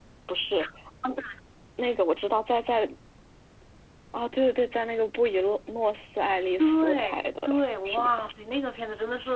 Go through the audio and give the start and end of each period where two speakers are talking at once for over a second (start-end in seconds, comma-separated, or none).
6.6-8.1